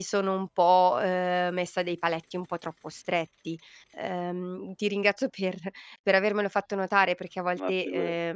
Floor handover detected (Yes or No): No